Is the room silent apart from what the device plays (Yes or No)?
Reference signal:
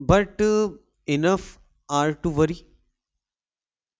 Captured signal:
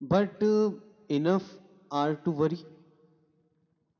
Yes